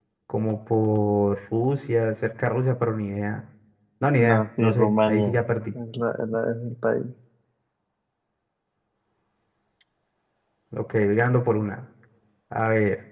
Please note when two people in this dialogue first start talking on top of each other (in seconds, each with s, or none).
4.2 s